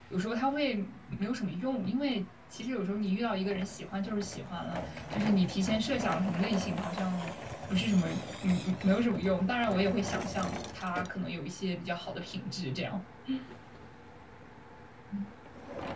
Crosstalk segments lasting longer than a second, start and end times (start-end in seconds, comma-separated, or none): none